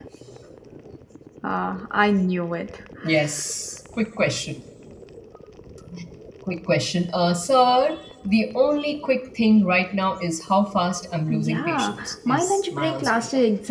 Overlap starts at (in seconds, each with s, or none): 11.3 s